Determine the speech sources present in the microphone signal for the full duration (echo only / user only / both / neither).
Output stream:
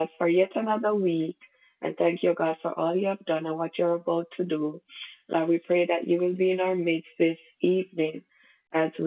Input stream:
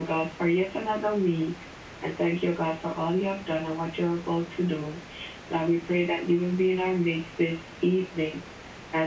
echo only